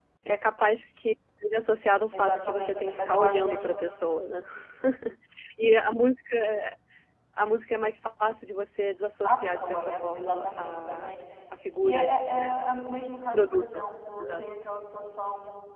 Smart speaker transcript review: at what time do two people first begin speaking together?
2 s

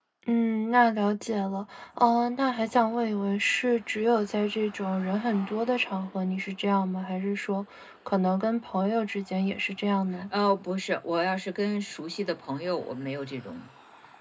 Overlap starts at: none

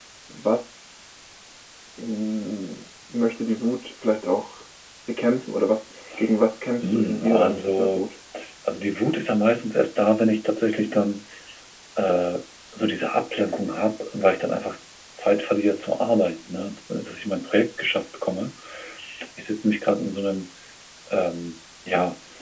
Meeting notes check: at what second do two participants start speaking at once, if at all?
7 s

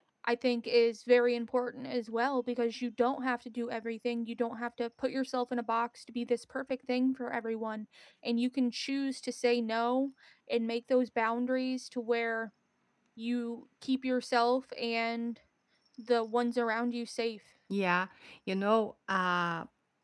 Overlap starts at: none

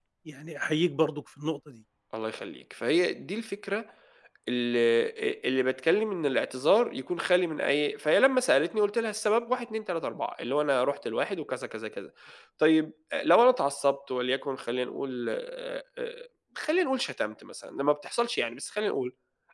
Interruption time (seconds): none

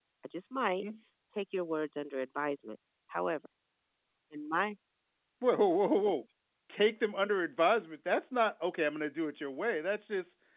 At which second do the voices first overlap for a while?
none

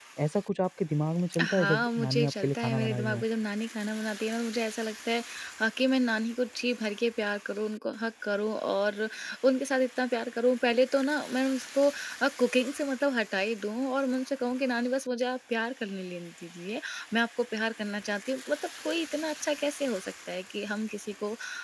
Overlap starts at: 1 s

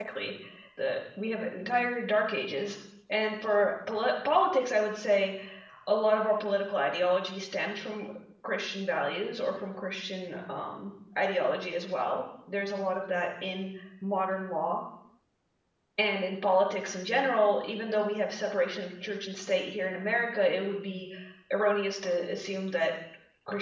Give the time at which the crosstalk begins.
none

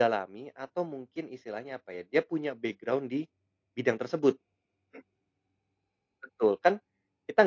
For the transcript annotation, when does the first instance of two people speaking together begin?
none

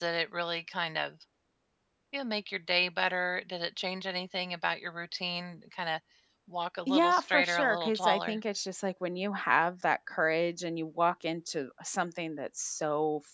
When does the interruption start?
7 s

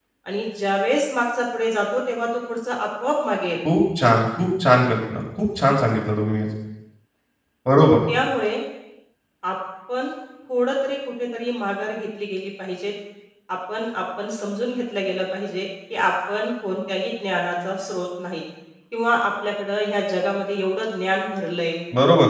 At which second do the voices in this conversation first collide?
none

